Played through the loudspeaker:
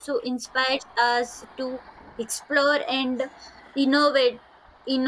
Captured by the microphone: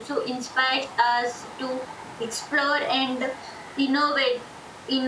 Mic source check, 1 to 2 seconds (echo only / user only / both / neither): echo only